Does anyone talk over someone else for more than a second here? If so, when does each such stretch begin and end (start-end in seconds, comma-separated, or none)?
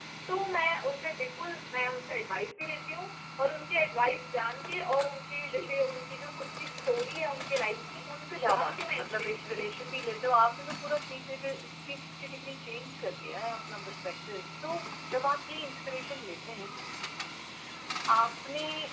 8.4-10.1